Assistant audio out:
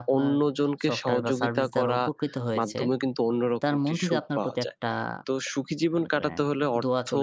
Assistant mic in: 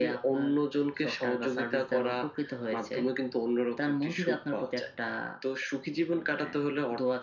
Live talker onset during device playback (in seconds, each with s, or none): none